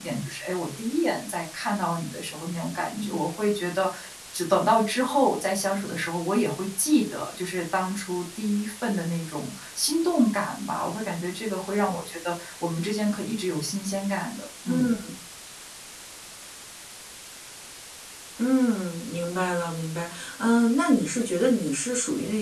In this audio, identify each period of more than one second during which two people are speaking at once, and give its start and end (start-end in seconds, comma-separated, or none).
none